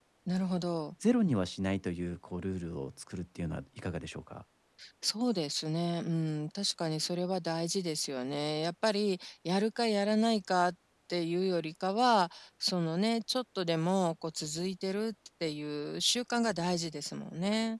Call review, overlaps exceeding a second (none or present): none